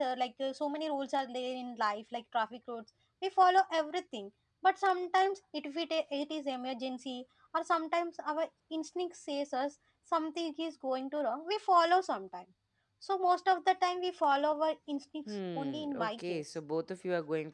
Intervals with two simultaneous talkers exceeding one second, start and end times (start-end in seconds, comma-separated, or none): 15.3-16.5